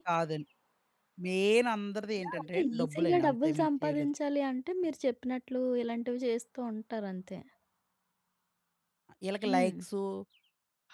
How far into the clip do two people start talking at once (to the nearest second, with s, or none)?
2 s